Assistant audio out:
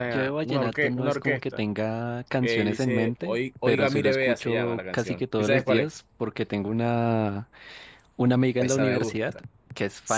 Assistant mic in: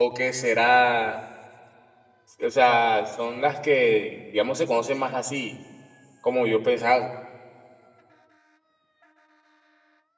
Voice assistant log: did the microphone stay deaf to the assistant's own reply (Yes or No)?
Yes